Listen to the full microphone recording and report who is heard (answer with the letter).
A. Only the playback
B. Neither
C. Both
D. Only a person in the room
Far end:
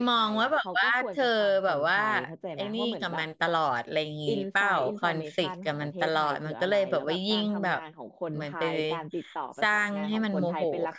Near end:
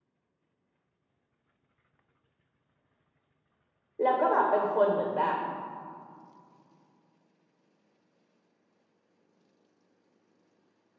D